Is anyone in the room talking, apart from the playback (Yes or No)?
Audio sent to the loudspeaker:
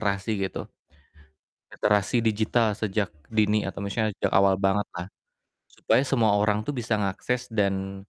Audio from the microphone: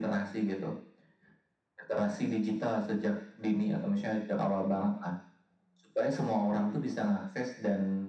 No